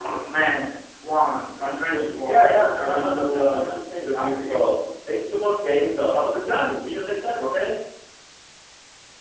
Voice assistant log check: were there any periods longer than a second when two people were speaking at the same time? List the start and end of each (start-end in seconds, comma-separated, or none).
2.2-4.6